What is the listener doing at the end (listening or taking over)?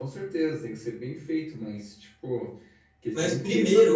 taking over